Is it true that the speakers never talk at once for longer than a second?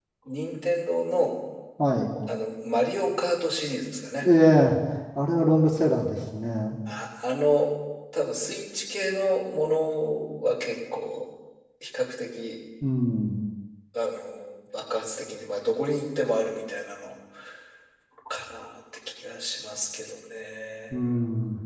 Yes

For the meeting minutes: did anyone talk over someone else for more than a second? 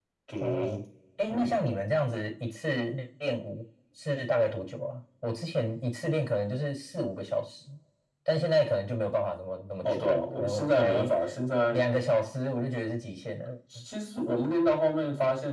Yes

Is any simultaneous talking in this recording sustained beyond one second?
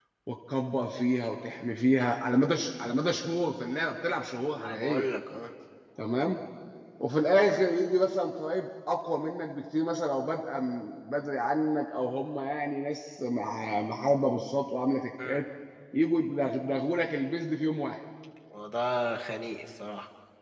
No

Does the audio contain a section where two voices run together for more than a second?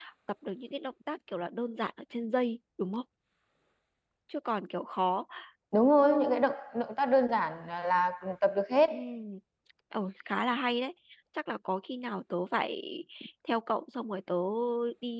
No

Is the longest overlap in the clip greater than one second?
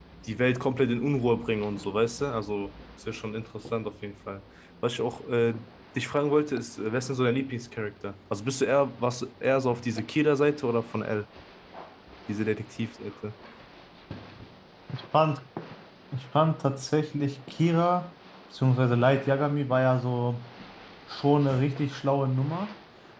No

